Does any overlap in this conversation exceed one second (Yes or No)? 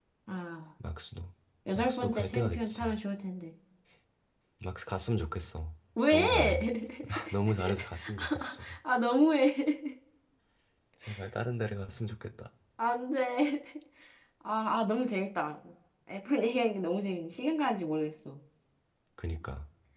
Yes